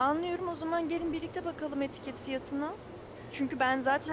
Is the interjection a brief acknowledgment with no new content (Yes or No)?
Yes